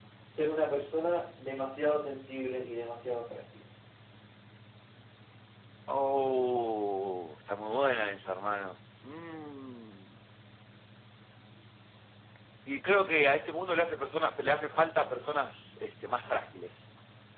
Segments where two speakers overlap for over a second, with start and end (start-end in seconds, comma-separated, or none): none